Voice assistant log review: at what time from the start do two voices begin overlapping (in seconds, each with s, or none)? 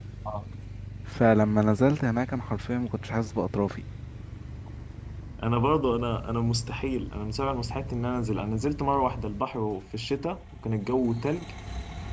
none